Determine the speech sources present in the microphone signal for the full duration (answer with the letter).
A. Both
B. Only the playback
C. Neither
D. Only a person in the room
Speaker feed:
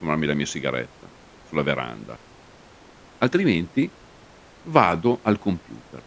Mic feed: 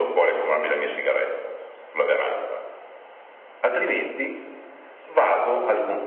B